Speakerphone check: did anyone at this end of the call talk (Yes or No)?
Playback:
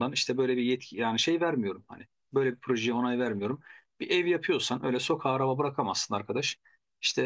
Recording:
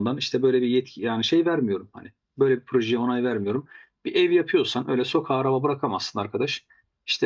No